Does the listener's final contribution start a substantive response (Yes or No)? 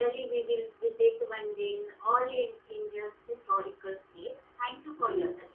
Yes